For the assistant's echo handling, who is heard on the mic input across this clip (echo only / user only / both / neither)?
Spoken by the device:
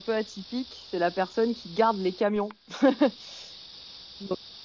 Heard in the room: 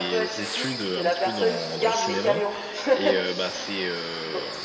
both